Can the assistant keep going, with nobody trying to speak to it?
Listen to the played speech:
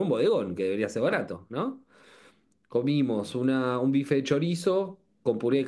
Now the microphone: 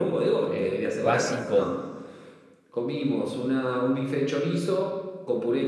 No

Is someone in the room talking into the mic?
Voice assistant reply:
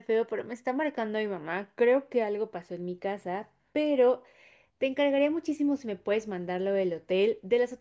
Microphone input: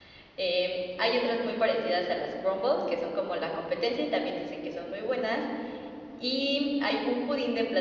Yes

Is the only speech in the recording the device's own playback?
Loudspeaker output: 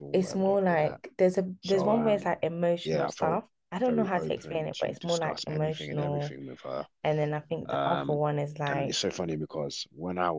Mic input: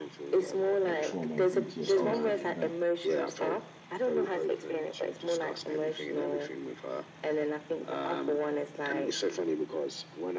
No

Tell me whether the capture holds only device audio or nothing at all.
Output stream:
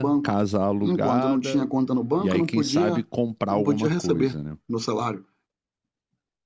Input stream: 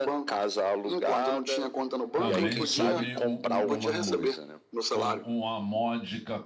No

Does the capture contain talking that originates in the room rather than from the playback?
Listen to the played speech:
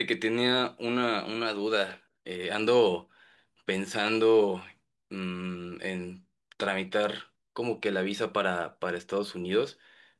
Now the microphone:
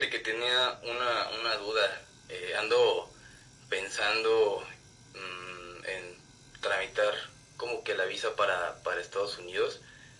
No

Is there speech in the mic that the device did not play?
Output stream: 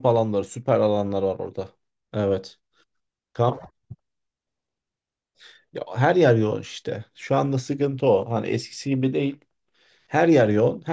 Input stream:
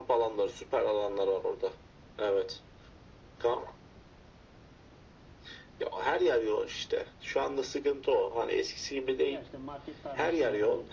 Yes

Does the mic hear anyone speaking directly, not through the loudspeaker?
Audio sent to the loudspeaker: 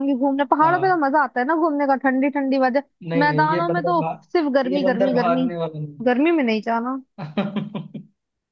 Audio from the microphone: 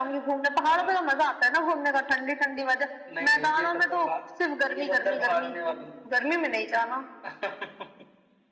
No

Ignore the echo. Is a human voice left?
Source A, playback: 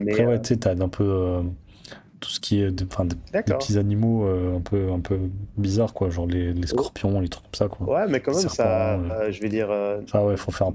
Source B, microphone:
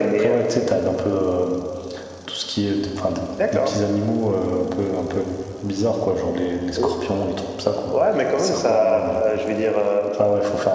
No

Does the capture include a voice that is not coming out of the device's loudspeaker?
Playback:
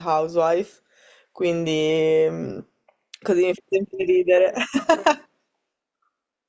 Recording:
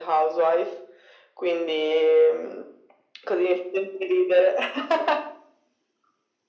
No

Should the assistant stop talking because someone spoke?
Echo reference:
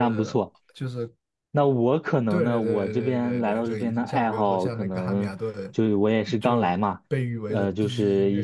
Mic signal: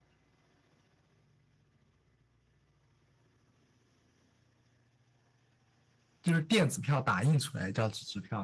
Yes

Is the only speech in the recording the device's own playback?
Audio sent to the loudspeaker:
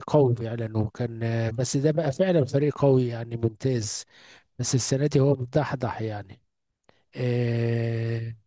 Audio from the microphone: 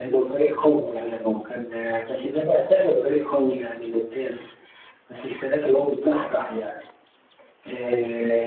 Yes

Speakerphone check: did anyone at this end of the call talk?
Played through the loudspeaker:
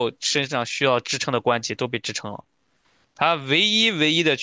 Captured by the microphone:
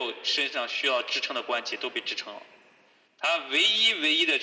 No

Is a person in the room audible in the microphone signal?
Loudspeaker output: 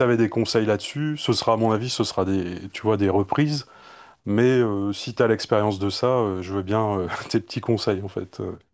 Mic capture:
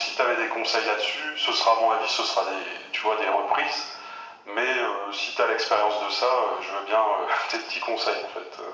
No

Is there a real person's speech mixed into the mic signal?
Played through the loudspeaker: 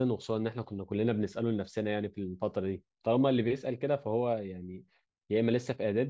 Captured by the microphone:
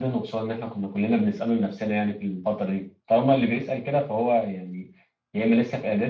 No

